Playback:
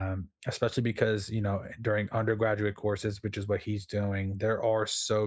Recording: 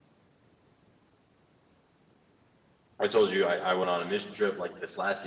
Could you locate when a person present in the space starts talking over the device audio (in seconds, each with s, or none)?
3.0 s